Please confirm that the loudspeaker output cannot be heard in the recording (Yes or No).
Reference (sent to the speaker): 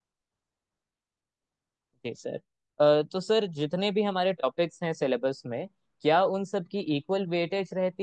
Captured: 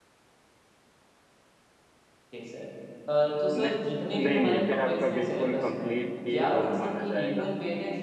No